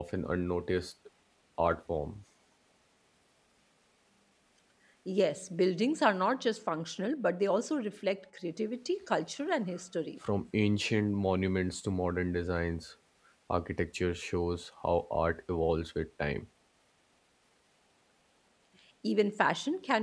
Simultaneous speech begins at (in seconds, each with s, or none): none